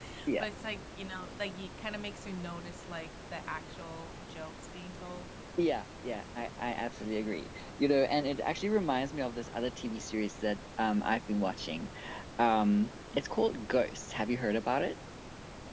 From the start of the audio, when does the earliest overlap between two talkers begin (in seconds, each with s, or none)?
none